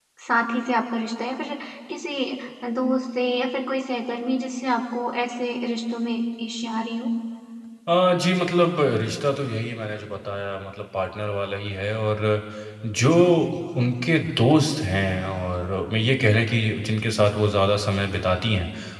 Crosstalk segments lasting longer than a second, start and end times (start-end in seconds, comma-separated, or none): none